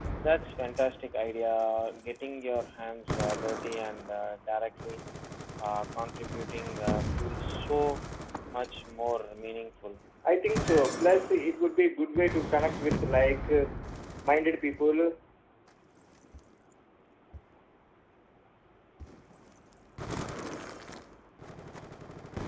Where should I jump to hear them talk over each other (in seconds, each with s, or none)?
none